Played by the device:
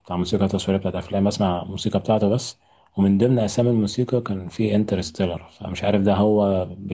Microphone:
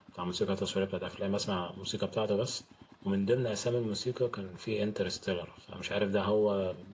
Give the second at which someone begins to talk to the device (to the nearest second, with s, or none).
none